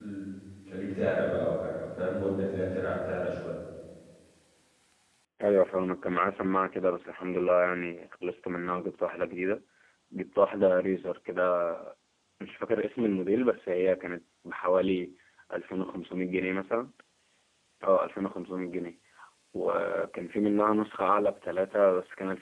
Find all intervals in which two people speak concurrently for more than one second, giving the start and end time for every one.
none

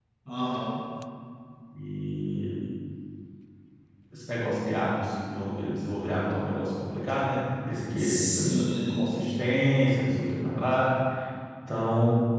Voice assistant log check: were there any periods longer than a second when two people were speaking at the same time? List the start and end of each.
8.0-9.3

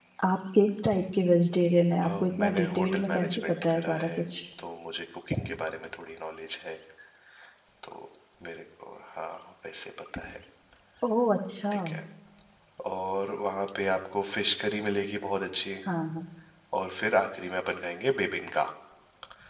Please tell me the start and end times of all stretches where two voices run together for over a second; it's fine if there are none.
2.0-4.1

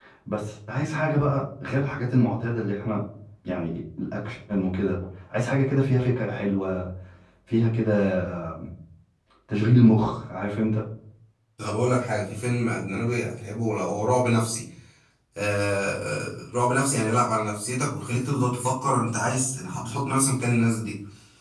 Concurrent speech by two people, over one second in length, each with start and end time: none

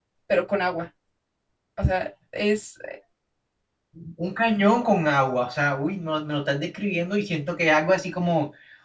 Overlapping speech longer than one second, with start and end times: none

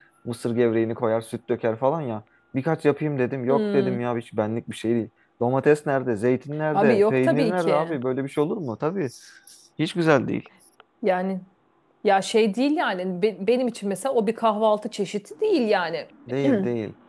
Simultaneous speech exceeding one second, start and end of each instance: 6.7-8.0

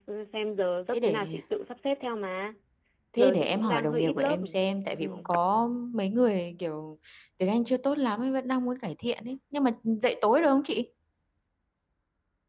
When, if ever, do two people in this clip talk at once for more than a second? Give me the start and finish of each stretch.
3.2-4.4

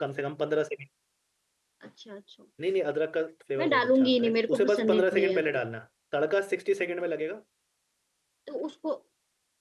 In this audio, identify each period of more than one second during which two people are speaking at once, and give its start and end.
3.6-5.6

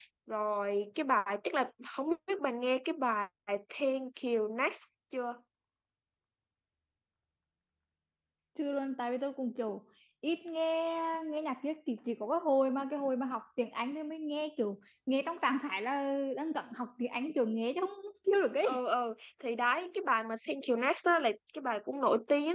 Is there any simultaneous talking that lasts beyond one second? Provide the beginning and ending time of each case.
none

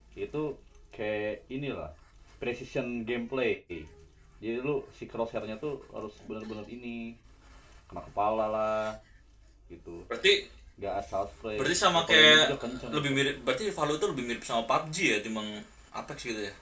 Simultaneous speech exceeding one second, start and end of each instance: 11.6-13.2

